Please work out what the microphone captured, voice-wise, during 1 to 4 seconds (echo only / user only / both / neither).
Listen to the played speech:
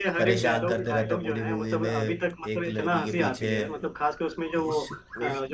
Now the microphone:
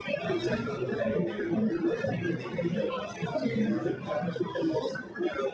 both